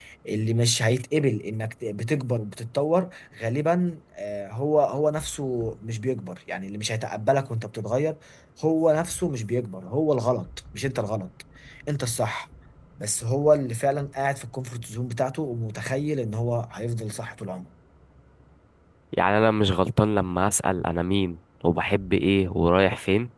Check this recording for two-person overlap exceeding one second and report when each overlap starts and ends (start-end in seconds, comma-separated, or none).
none